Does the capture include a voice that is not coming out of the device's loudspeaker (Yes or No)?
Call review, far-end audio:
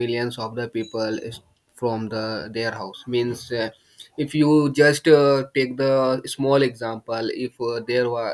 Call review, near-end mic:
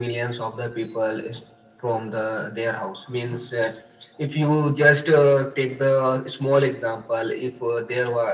No